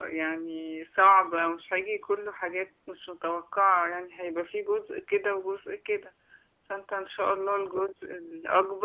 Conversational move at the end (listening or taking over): listening